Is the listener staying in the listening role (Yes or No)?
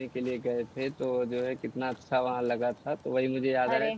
Yes